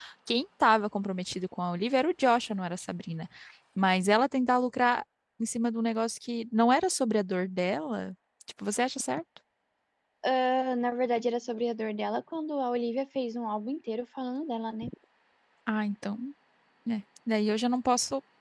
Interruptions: none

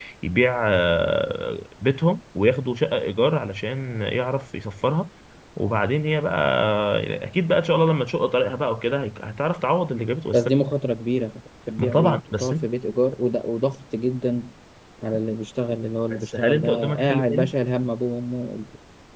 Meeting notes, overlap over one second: present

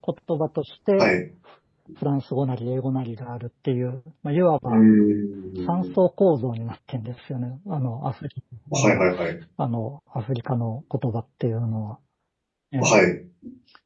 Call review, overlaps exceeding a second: none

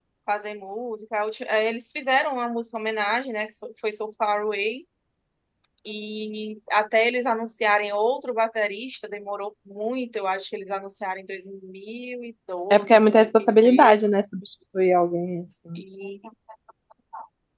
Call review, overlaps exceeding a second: present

